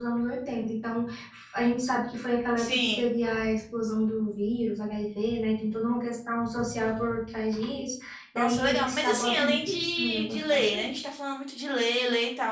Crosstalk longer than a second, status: present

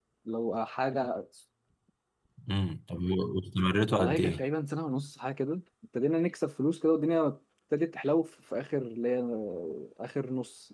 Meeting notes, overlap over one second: none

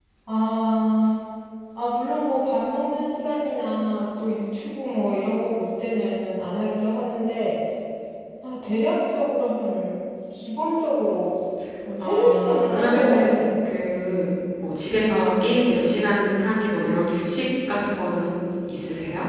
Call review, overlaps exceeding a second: present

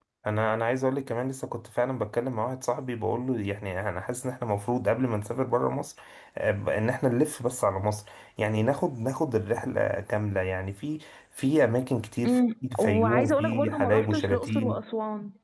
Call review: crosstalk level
present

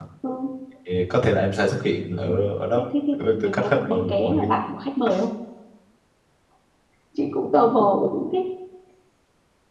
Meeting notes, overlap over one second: present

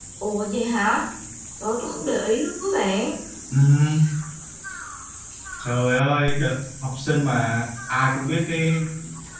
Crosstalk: none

